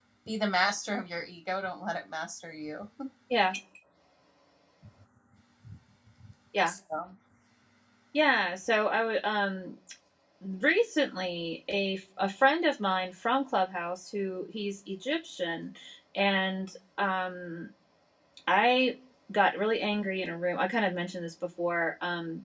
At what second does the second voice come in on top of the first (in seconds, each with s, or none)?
none